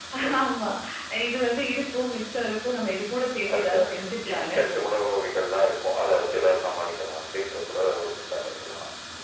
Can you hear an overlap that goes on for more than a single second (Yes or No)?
No